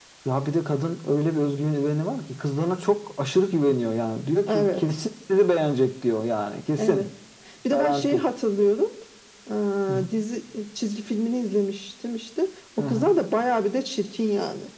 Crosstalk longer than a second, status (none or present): none